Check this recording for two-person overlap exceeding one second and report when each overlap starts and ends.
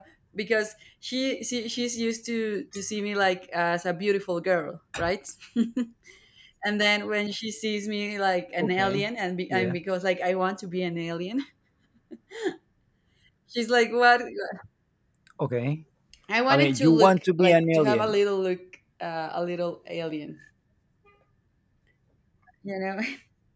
16.5-18.1

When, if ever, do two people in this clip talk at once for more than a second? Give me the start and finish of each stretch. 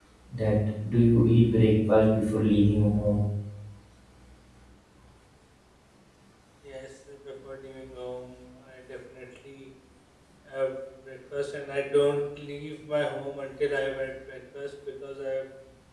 none

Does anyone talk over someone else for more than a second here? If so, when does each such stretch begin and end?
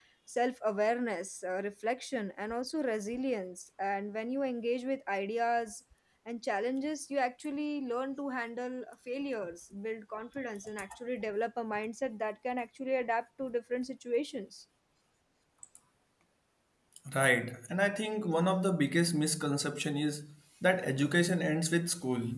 none

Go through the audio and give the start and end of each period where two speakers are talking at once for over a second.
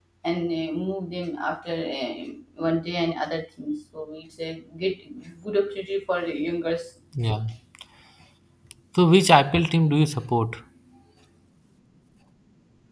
none

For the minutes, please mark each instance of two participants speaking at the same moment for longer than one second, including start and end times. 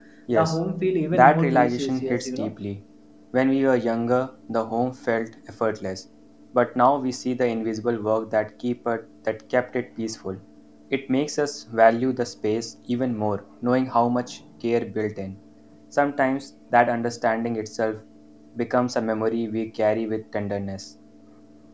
1.1-2.5

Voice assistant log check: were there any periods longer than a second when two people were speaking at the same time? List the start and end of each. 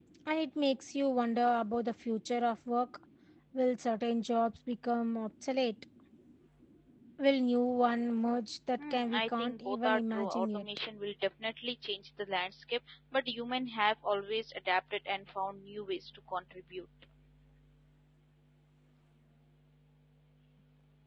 8.9-10.7

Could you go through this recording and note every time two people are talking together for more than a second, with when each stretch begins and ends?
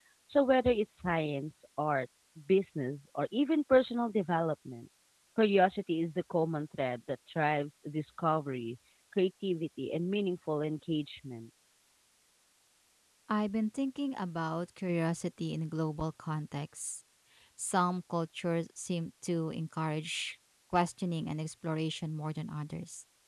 none

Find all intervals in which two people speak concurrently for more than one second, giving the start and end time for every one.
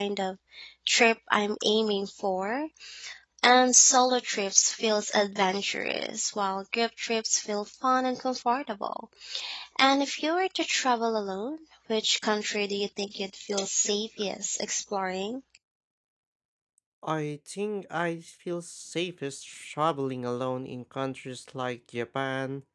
none

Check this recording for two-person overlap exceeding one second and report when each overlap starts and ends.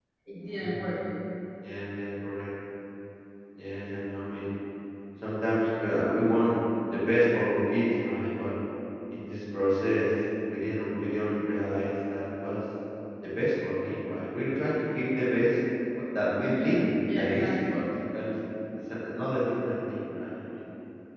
16.4-17.8

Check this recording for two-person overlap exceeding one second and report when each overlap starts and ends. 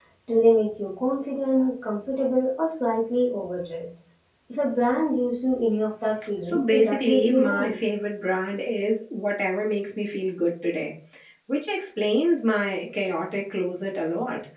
6.4-7.8

